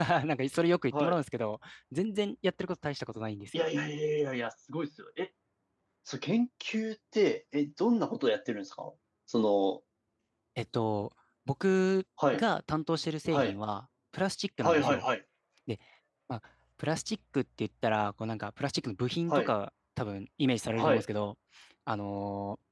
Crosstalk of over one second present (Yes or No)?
No